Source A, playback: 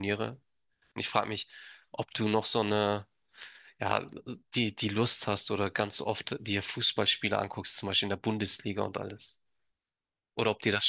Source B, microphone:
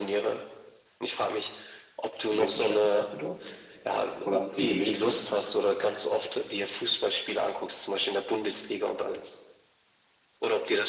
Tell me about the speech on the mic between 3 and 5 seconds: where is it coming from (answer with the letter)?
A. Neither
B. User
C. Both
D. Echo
C